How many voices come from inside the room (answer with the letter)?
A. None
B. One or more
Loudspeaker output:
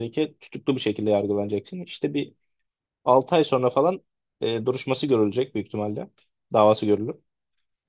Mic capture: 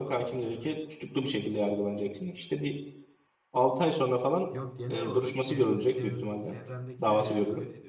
B